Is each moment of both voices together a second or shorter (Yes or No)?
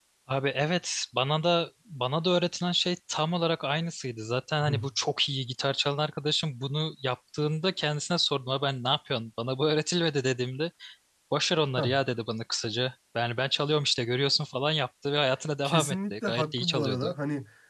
No